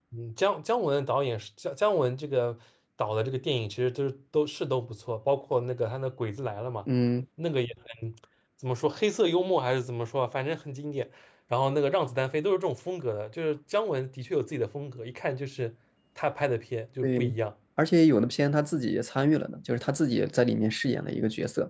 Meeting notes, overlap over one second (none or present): none